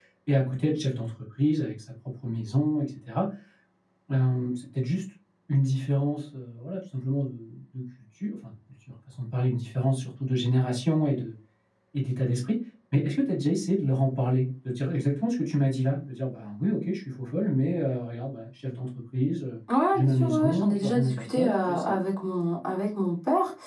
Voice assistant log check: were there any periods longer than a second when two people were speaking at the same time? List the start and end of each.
19.9-22.0

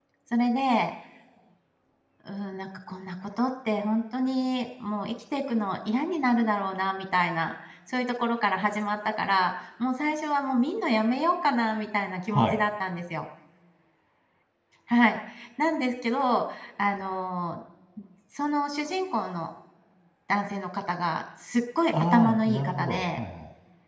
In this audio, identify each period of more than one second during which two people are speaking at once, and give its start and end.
21.9-23.2

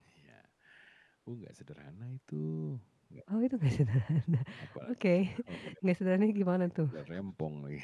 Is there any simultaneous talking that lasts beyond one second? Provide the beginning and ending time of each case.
none

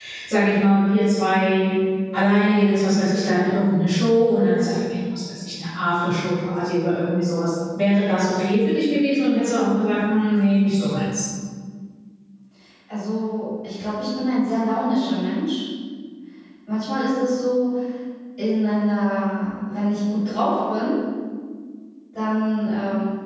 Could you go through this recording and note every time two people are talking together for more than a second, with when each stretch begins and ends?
none

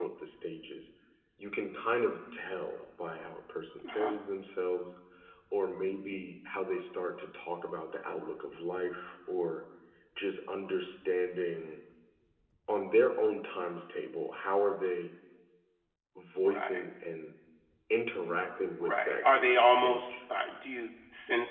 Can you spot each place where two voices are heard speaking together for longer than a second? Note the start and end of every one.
18.8-20.2

